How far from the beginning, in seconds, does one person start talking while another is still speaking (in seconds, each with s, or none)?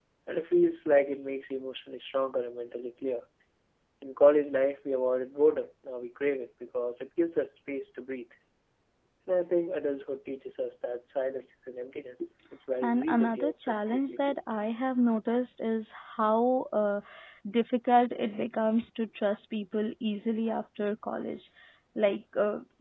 12.8 s